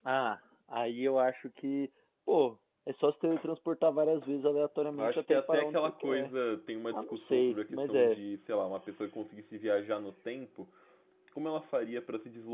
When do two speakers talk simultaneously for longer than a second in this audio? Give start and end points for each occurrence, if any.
5.0-6.3, 6.9-8.2

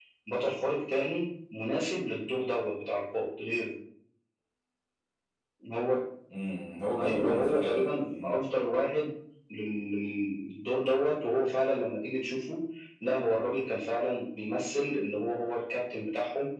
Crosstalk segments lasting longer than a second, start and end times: 7.0-8.4

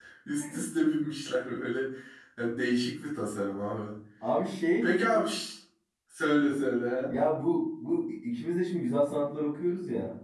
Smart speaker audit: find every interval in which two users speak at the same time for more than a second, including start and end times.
none

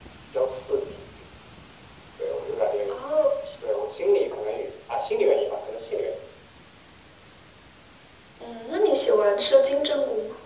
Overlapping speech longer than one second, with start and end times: none

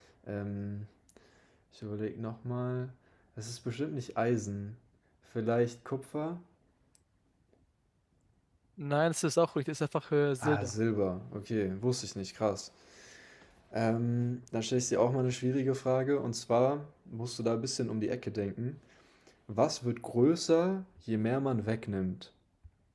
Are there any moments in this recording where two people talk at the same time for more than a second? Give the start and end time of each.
none

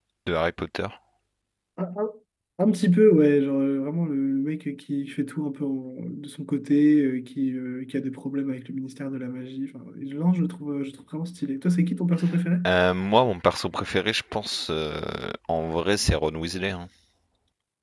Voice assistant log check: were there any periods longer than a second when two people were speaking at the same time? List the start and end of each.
none

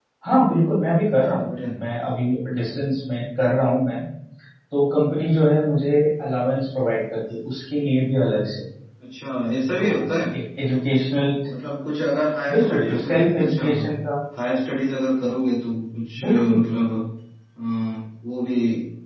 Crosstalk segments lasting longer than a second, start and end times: 12.5-13.9

